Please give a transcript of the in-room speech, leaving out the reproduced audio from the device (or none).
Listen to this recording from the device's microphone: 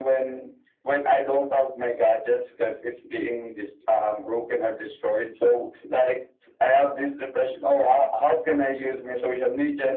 none